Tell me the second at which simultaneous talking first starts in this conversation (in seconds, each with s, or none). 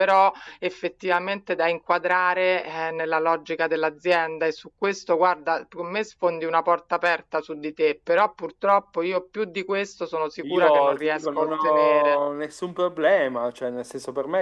10.4 s